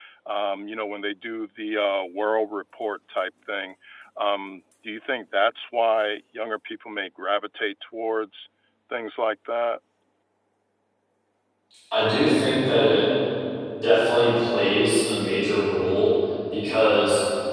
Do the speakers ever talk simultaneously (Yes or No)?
No